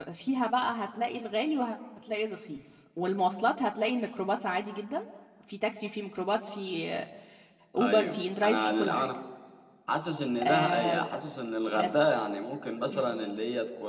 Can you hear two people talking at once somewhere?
Yes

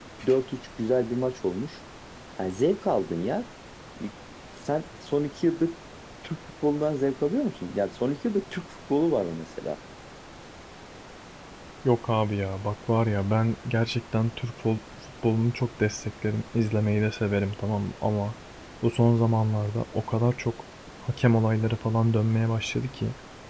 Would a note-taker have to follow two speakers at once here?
No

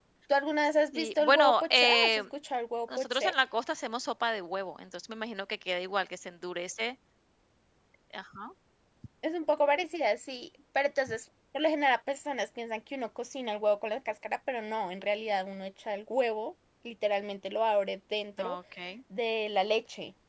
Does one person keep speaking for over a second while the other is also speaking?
Yes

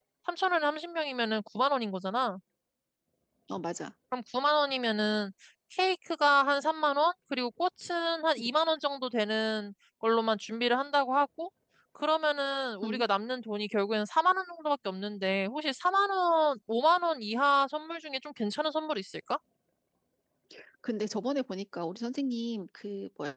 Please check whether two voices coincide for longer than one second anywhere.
No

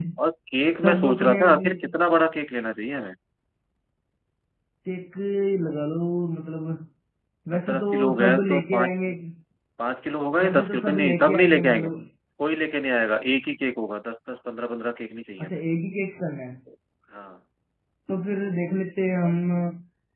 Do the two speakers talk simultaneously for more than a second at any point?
Yes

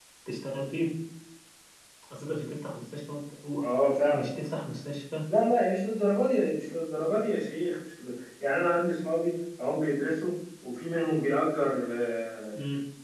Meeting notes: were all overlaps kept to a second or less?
Yes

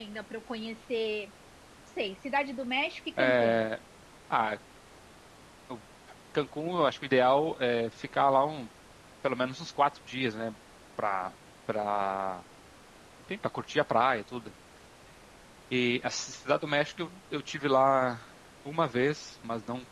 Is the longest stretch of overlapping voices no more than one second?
Yes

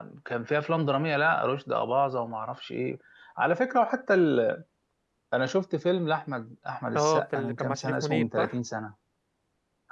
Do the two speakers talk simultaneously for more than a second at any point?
Yes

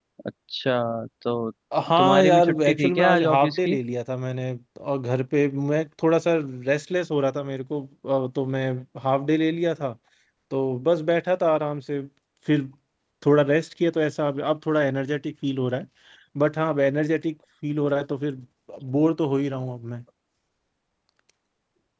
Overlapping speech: Yes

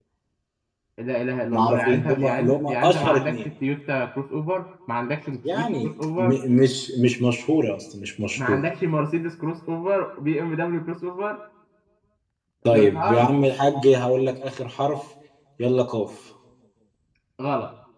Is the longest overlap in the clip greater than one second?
Yes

